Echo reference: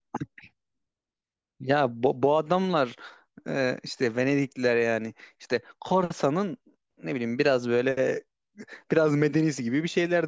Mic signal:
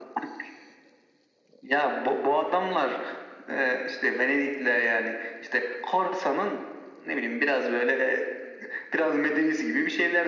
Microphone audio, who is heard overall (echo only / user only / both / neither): echo only